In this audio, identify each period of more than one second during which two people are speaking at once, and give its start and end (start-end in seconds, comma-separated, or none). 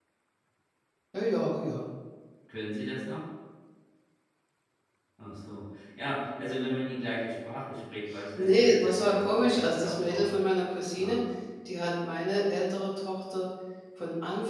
8.4-10.3